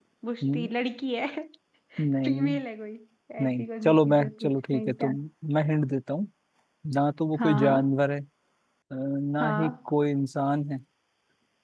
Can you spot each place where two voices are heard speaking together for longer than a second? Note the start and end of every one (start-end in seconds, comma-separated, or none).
3.4-5.1